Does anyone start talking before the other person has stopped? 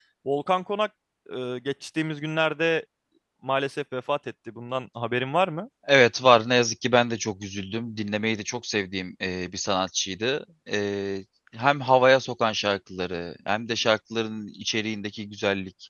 No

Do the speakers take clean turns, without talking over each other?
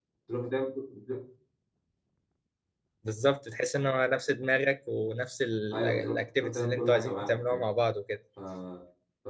No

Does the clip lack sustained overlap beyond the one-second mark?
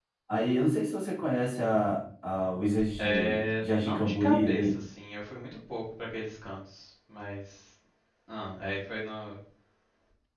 No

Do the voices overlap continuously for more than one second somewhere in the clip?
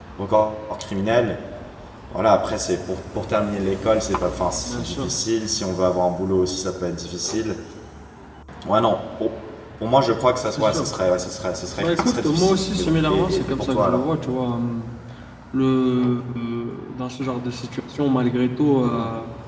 Yes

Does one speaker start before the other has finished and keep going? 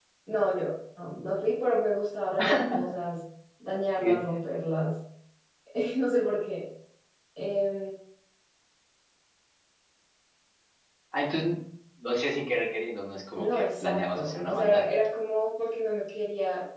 Yes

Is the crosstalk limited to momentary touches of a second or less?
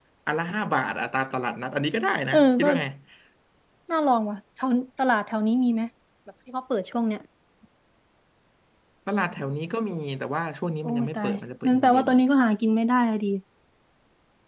No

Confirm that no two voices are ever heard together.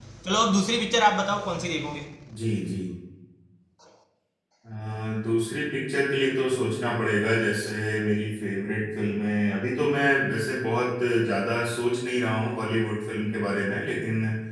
Yes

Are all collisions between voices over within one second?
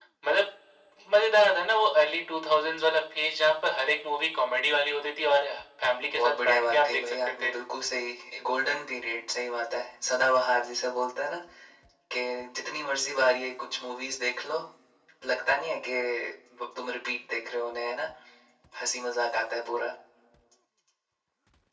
No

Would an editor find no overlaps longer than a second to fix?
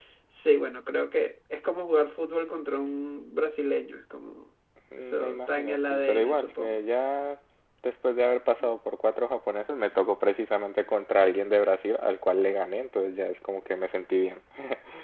No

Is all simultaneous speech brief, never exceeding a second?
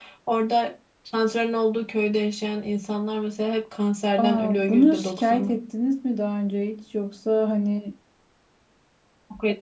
No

